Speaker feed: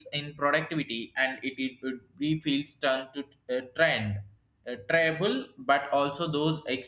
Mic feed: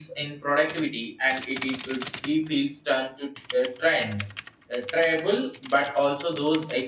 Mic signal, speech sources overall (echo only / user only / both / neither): echo only